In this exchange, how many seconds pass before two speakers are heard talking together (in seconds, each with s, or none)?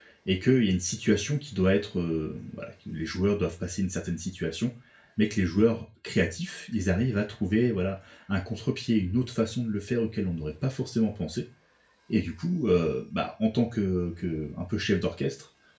none